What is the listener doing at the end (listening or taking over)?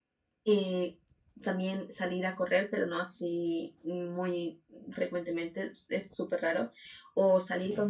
listening